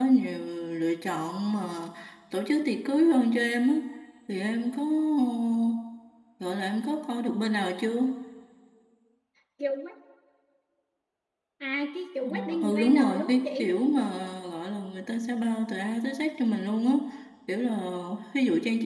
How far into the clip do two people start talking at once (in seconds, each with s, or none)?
12.2 s